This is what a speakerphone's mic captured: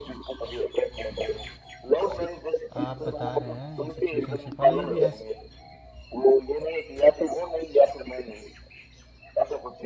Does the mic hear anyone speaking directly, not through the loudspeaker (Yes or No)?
Yes